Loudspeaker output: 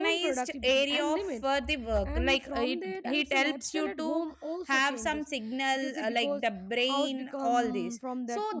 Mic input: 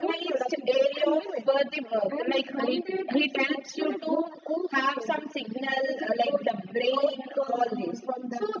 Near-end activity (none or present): none